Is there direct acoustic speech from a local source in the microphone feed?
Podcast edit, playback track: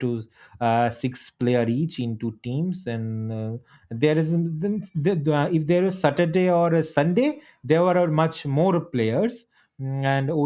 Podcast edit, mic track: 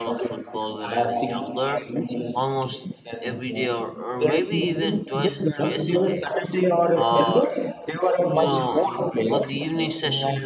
Yes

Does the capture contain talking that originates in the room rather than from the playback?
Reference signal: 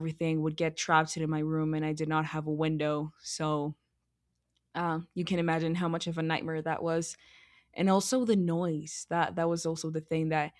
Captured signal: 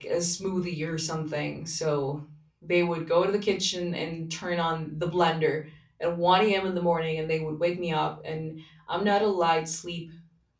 Yes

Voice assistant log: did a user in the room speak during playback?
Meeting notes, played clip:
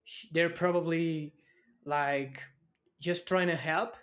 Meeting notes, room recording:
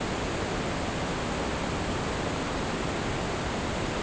No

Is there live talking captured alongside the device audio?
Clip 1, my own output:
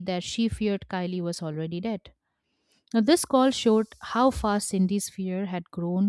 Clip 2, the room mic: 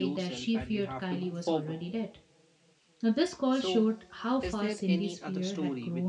Yes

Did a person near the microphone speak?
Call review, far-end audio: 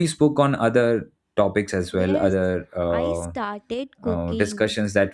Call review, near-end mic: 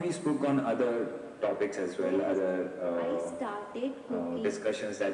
No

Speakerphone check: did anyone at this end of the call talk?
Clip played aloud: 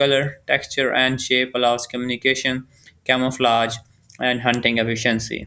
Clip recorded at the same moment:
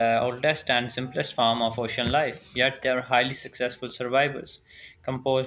Yes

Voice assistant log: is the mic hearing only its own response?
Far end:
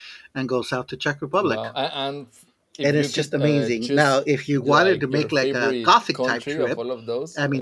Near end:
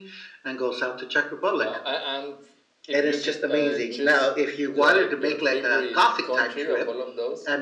Yes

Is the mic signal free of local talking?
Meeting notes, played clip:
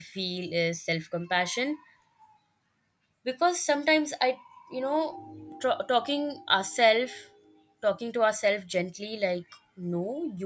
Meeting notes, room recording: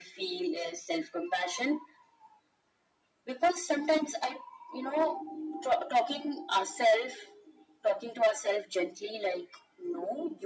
Yes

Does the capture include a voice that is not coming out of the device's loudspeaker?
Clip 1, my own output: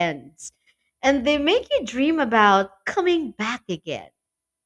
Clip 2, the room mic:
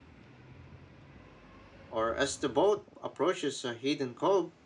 Yes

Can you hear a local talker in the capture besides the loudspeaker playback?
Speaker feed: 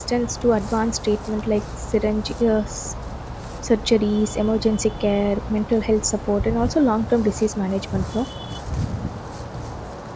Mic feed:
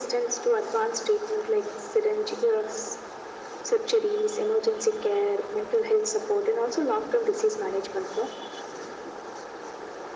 No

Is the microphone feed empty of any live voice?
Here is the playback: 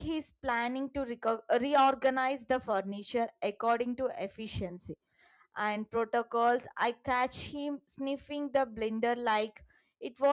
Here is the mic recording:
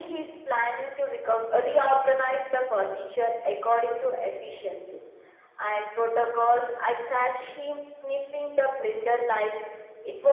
Yes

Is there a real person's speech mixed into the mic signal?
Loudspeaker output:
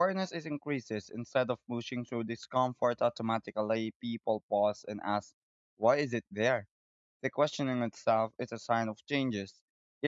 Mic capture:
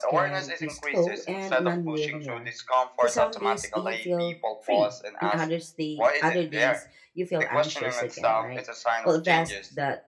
Yes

